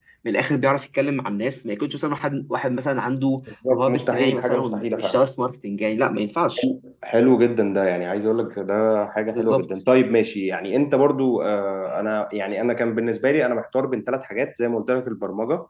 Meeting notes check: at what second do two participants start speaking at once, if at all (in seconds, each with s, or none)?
3.7 s